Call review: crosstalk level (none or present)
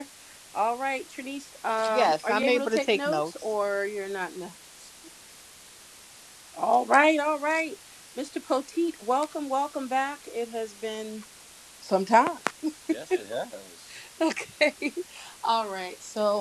present